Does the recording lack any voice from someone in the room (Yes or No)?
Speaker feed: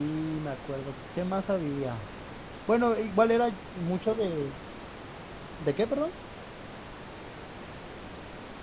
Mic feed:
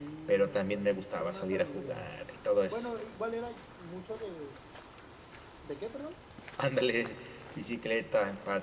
No